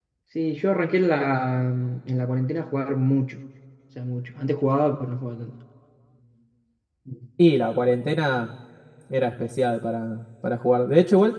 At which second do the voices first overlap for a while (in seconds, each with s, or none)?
none